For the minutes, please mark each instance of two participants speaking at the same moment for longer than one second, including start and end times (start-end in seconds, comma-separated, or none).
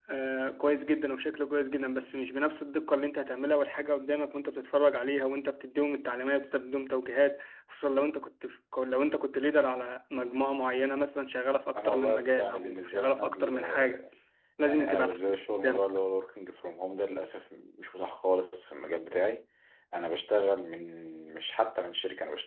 11.8-14.1